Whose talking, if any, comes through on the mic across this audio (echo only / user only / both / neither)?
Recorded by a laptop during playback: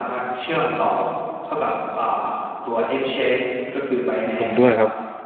both